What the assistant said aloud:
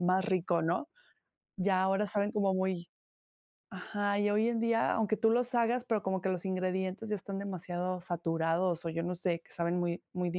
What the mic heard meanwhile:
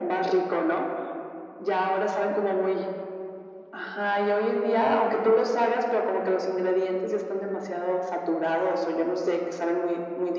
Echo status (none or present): present